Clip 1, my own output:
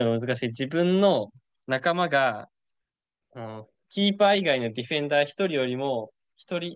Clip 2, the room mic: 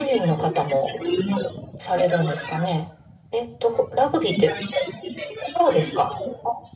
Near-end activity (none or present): present